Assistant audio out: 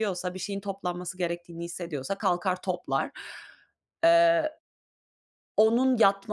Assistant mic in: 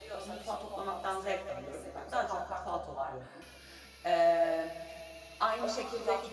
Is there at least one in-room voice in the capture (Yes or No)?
Yes